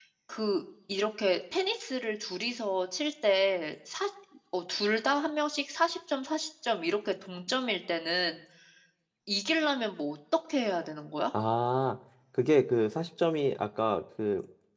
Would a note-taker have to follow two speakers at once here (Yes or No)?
No